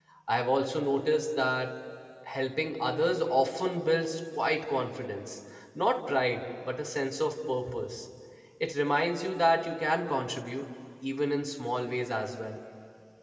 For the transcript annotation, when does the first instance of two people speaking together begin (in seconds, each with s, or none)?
none